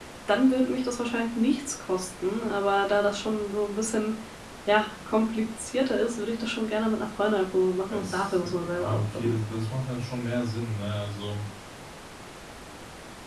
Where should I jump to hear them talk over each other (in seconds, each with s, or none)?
7.9 s